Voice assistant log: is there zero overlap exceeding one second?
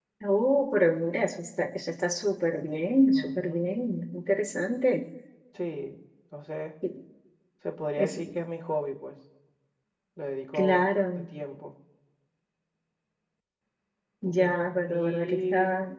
No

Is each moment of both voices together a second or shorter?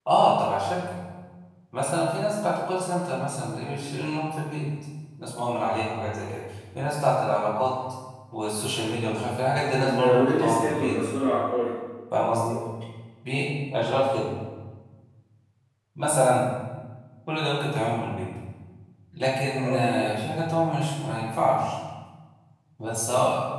No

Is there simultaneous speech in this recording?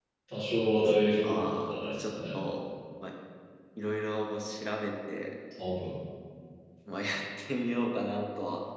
Yes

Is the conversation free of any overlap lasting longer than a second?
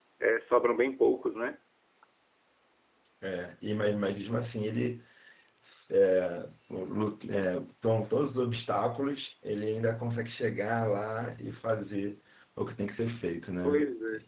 Yes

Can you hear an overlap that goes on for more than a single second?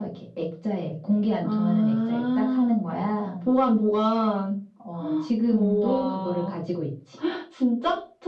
Yes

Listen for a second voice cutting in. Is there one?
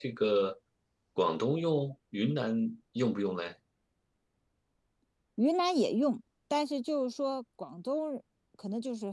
No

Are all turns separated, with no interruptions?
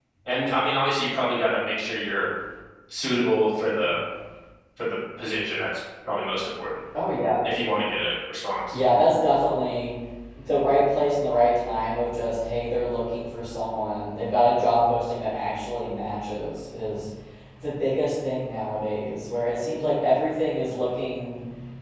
Yes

